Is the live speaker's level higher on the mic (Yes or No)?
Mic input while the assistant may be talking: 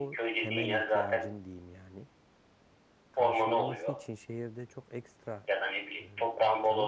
No